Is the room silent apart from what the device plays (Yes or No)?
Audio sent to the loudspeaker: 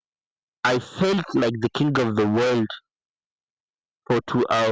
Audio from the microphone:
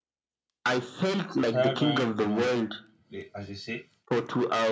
No